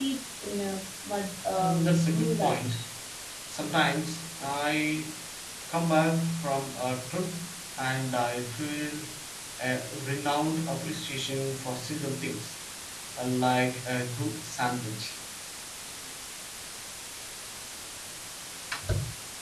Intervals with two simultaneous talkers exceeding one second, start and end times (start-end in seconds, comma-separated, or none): 1.5-2.8